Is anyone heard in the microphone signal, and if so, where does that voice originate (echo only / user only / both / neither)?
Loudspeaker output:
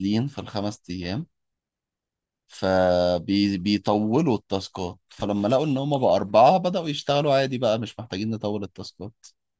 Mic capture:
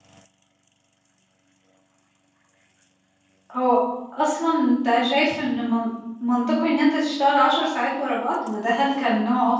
user only